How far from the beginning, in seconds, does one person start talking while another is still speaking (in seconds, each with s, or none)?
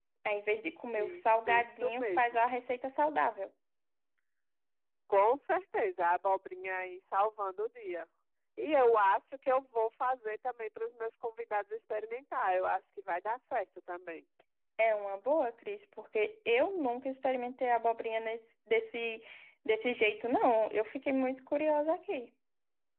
0.9 s